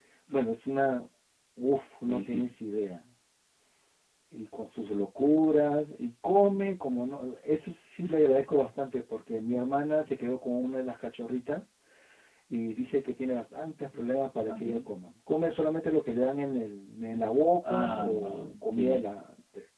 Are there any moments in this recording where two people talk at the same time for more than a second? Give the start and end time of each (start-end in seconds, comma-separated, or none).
17.7-19.1